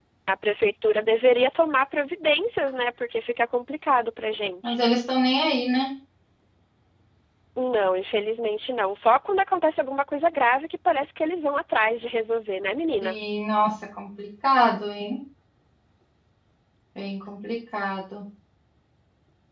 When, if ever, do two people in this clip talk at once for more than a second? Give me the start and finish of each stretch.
none

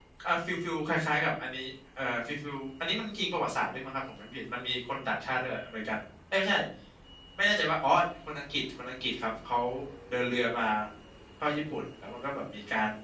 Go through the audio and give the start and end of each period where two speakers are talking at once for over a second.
none

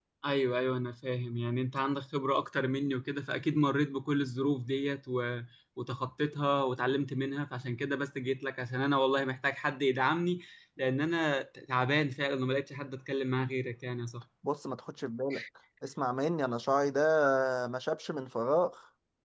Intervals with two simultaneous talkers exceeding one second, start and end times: none

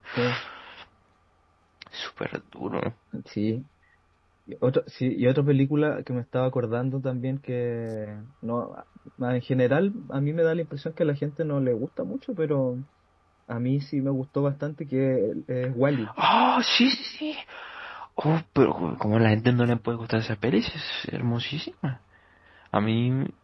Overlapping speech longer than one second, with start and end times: none

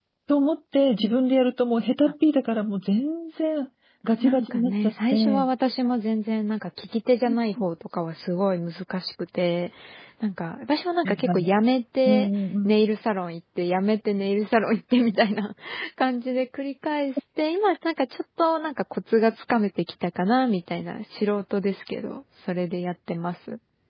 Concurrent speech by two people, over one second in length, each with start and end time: 4.2-5.5

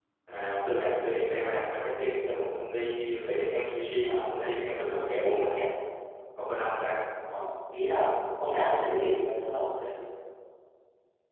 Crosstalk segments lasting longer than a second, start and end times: 4.0-5.5

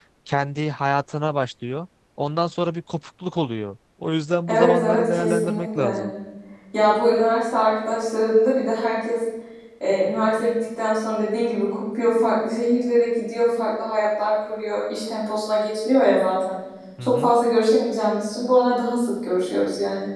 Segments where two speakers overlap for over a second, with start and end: 4.5-6.1

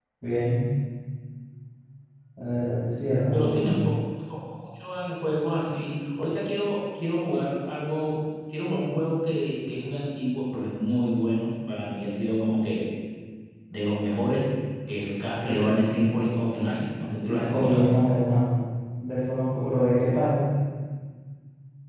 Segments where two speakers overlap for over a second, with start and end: none

